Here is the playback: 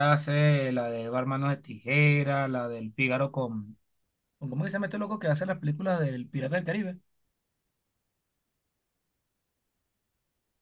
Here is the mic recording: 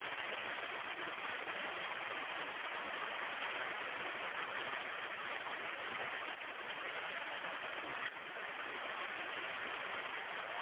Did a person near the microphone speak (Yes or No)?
No